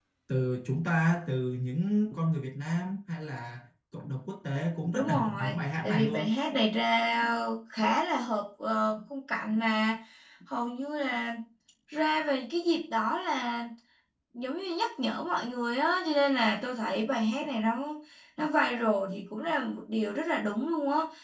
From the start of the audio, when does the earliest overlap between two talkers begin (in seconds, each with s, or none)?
5.0 s